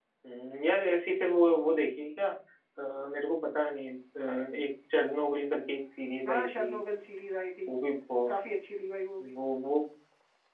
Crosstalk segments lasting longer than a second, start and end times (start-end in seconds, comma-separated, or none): none